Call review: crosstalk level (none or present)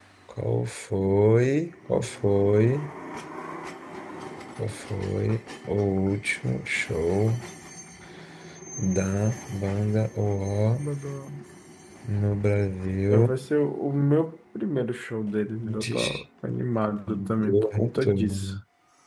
present